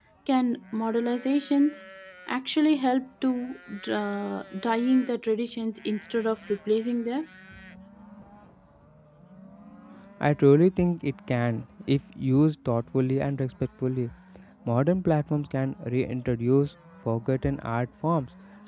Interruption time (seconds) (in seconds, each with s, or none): none